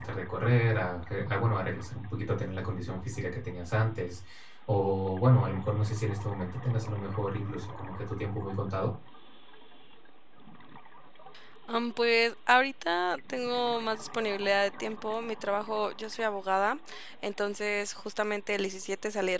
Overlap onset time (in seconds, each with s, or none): none